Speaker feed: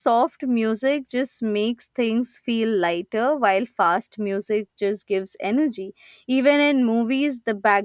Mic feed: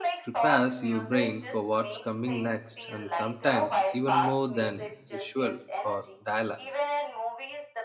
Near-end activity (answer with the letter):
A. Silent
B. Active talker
B